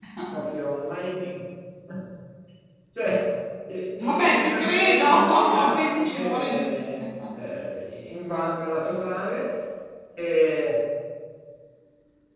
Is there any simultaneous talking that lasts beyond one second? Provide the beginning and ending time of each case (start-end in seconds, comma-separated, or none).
4.0-6.7